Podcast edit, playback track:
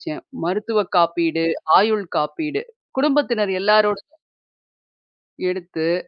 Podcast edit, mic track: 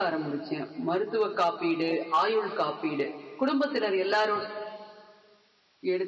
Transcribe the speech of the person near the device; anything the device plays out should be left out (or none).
none